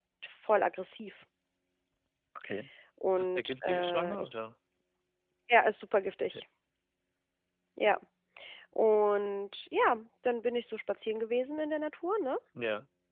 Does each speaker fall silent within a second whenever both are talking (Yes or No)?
No